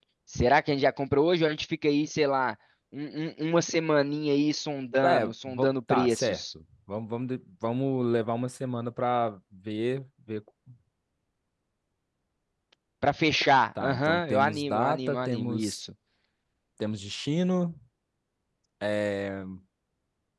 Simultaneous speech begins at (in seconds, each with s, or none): 5.0 s